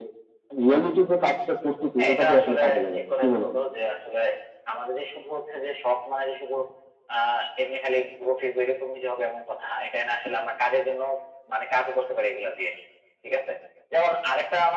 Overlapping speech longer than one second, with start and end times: 2.0-3.5

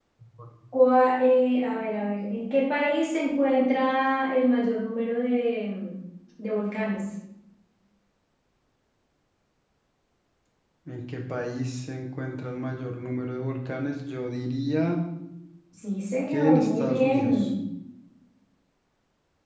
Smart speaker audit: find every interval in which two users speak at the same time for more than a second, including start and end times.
16.3-17.5

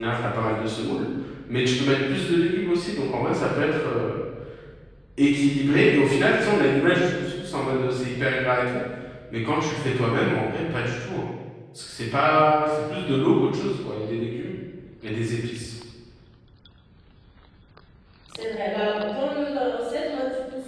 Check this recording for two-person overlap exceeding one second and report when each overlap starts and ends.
none

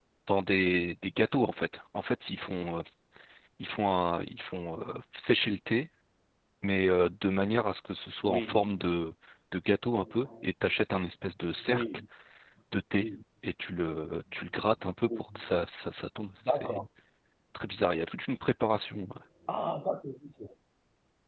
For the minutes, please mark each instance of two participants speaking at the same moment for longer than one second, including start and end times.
none

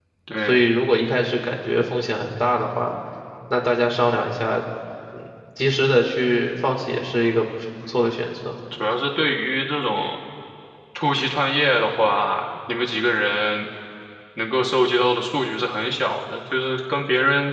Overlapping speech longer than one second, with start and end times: none

